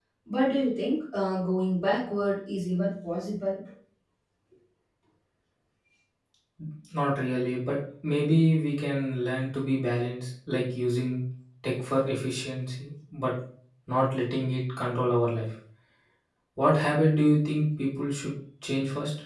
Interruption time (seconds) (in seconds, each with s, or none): none